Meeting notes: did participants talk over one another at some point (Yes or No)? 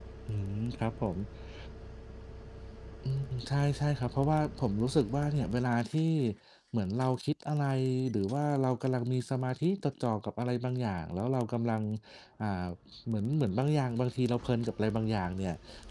No